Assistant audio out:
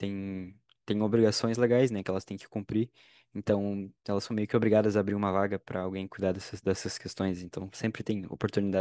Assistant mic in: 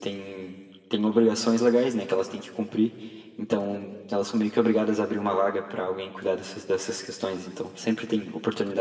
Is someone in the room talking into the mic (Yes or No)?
No